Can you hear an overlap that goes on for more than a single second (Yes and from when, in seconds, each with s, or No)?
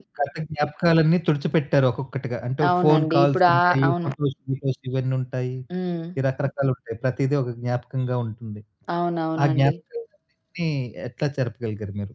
Yes, from 2.7 s